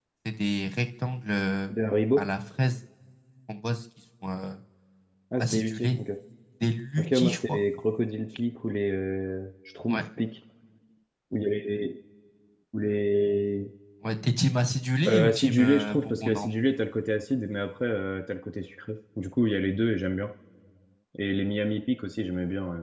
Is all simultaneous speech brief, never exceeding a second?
No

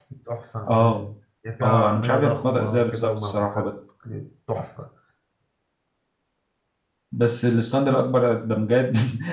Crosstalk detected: Yes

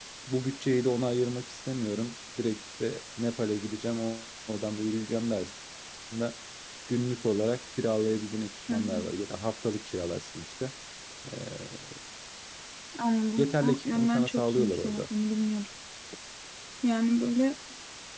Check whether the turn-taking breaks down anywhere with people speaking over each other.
Yes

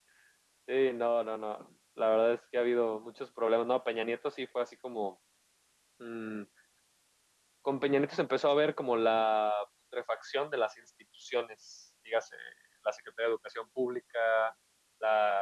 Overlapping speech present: No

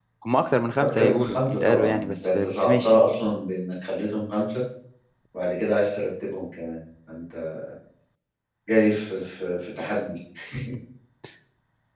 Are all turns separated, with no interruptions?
No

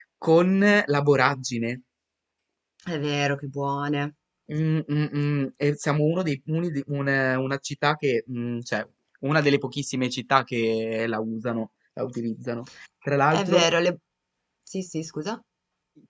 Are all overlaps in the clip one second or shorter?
Yes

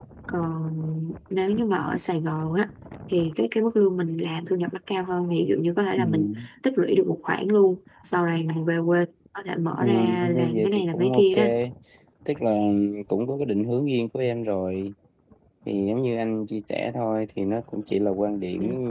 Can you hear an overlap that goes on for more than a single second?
Yes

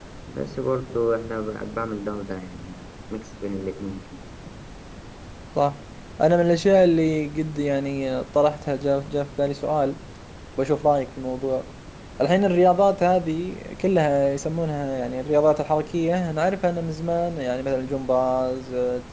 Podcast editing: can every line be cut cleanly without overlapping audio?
Yes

